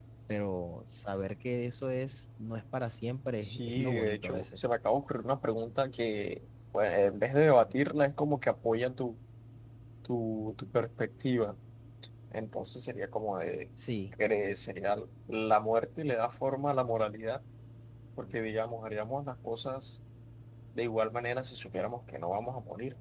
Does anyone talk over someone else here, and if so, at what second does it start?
3.4 s

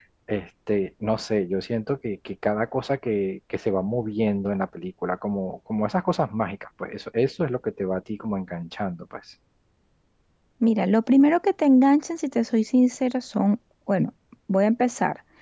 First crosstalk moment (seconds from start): none

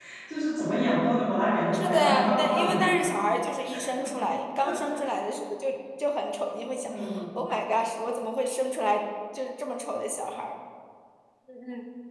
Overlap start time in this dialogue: 1.7 s

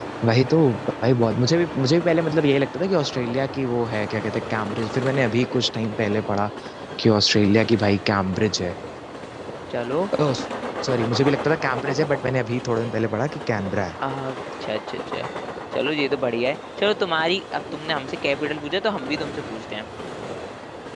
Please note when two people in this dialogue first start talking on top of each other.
none

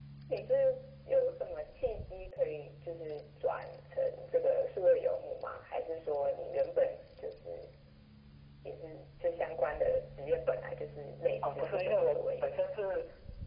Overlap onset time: 11.4 s

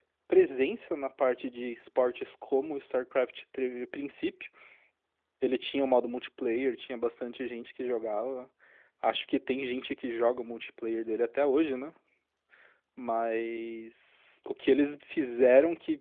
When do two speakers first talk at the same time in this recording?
none

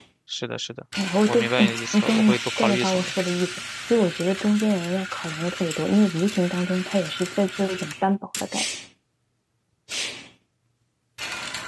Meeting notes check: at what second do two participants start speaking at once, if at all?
1.3 s

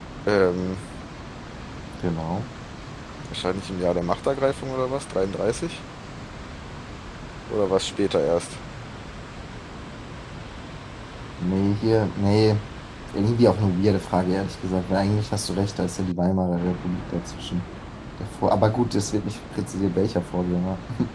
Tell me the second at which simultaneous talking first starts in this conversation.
none

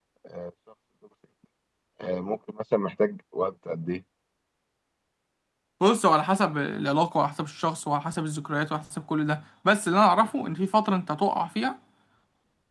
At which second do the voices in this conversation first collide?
none

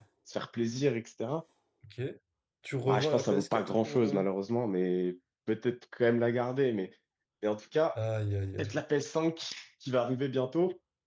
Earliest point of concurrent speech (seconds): 2.8 s

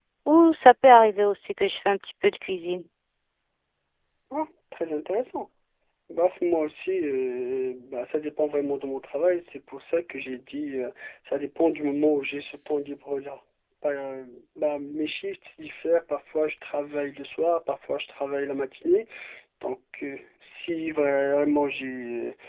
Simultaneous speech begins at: none

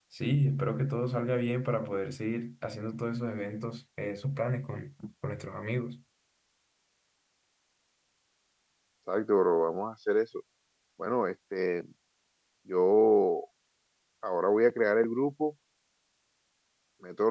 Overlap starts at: none

